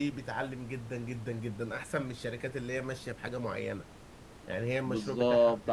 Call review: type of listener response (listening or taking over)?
taking over